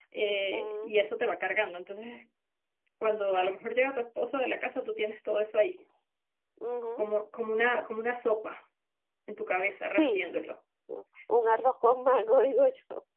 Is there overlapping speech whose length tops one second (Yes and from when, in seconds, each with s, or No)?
No